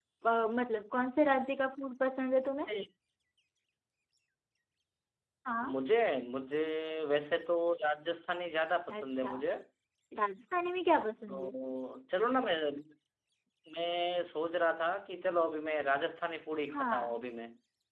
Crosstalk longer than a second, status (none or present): none